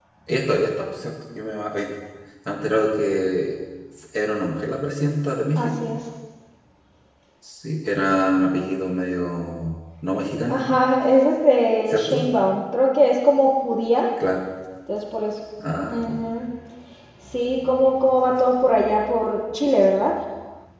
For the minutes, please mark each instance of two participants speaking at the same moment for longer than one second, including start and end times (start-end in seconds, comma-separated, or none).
none